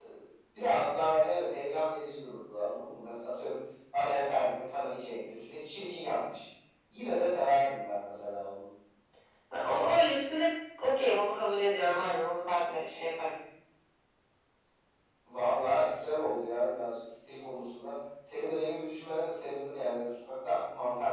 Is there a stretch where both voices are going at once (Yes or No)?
No